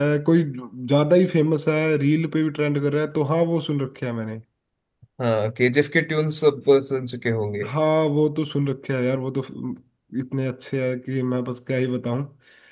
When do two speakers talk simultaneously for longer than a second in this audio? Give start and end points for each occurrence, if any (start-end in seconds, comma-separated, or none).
none